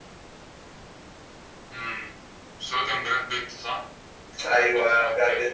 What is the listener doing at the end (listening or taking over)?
taking over